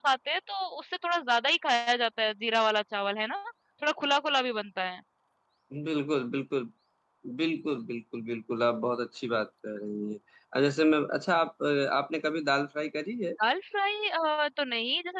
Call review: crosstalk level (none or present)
none